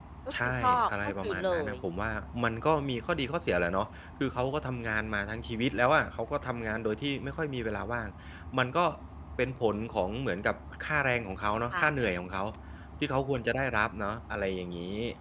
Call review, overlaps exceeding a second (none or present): present